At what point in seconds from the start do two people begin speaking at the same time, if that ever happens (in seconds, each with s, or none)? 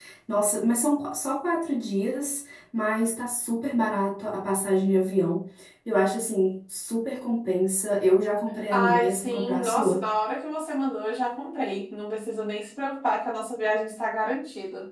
8.7 s